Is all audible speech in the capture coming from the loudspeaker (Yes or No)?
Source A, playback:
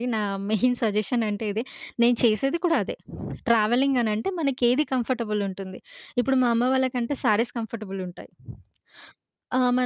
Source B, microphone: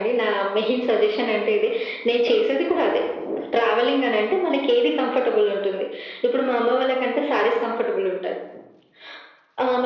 Yes